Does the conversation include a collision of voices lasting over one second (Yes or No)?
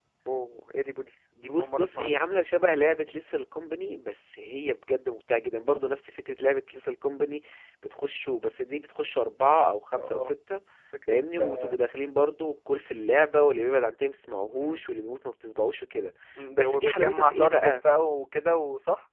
Yes